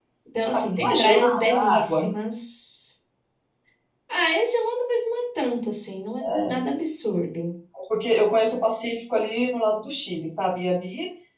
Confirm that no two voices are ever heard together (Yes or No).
No